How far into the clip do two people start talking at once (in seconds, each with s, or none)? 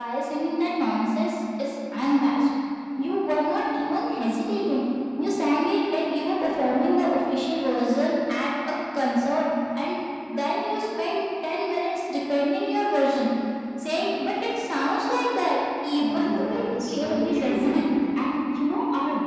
16.0 s